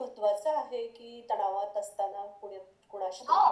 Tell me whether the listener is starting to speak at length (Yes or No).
Yes